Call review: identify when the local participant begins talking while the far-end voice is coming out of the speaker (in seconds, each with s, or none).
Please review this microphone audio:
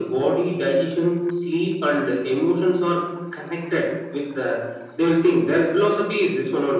none